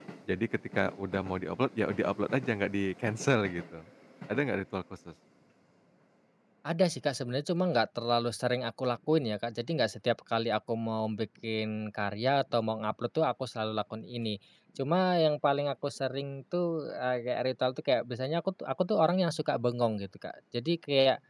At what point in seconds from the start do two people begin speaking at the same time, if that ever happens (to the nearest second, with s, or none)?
none